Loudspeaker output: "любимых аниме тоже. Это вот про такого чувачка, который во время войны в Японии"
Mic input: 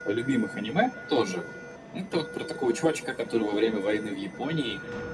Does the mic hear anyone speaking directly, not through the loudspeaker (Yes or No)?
No